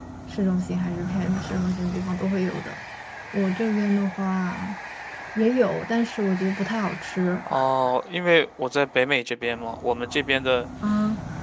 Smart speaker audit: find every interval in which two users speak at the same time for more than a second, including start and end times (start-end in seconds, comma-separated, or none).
none